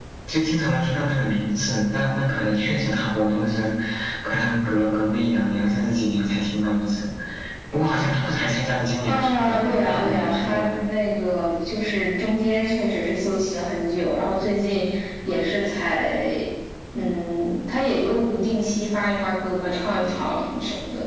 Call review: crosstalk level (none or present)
present